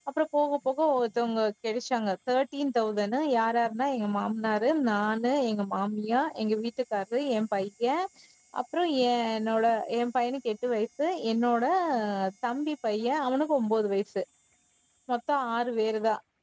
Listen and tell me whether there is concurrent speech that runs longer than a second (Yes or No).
No